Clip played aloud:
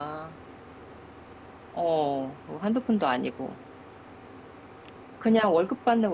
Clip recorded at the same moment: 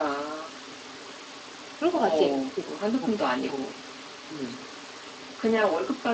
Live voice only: 그럴 것 같지? 그치? 어, 어, 음,

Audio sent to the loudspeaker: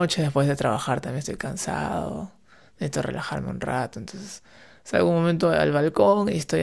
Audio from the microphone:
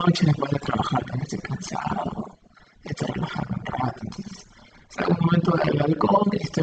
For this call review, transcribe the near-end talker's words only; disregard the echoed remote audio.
none

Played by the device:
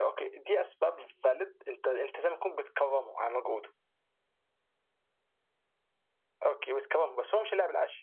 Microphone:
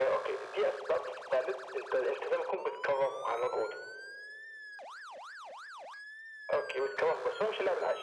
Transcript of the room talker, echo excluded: none

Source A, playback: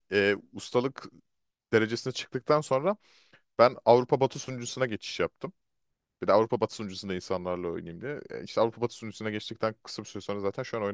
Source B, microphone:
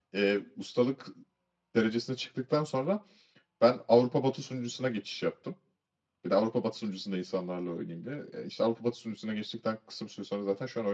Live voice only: none

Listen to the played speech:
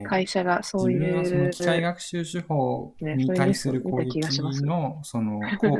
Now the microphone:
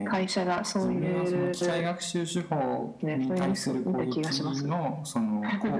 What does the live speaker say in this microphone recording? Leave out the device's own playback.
none

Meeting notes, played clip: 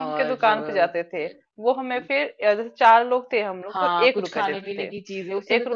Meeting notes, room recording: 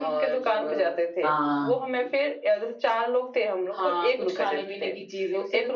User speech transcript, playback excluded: हाँ

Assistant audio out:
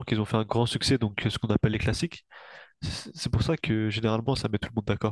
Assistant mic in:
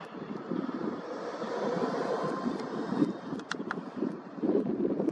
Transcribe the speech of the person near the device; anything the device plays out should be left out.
none

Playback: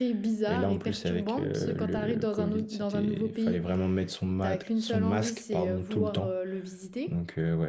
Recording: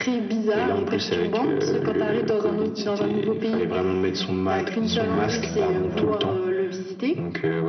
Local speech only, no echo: Donc, euh, donc voilà.

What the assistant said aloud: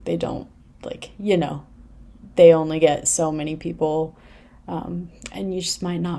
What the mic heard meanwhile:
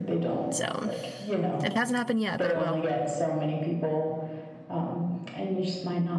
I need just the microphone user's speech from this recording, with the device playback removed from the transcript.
So it hasn't happened yet, but it will.

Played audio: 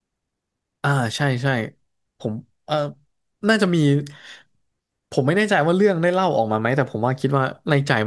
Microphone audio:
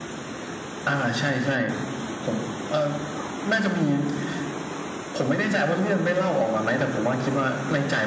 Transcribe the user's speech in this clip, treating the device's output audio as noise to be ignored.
none

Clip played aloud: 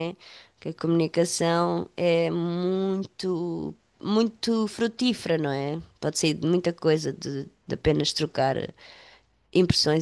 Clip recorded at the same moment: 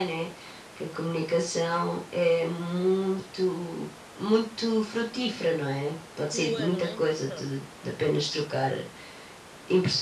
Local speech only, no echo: tua, não é? Pronto.

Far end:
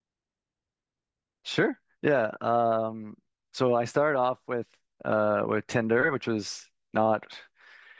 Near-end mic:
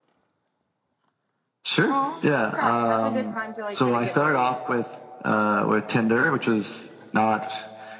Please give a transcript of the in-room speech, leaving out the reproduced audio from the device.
Oh, congrats. And that's a good time to like kind of get married

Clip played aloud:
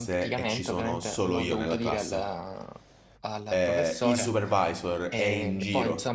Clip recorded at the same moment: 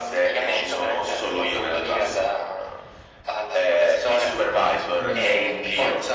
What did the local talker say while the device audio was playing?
mm".

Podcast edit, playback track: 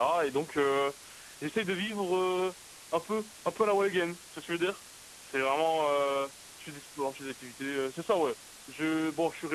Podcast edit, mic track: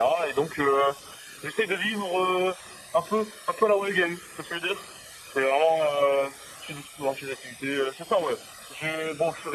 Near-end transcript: none

